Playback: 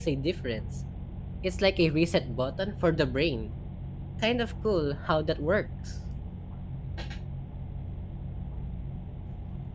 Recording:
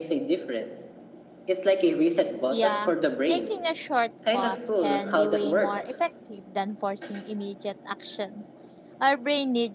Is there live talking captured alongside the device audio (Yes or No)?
Yes